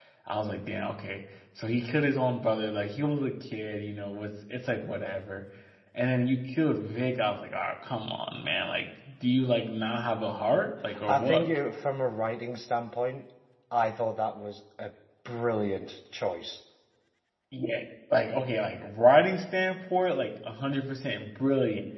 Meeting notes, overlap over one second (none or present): none